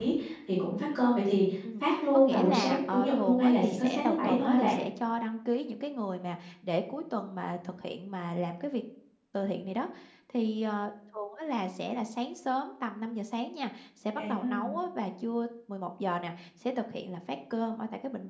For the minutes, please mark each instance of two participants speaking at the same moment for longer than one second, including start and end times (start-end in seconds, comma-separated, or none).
1.8-4.7